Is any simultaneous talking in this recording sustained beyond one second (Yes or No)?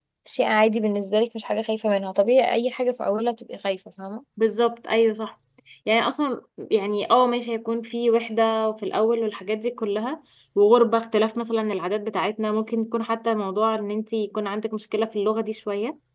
No